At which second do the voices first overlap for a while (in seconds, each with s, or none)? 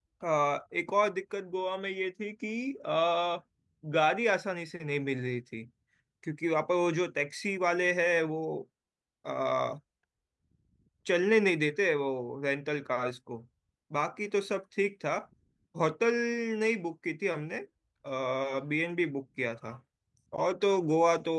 none